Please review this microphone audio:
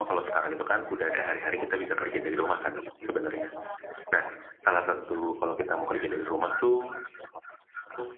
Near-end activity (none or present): present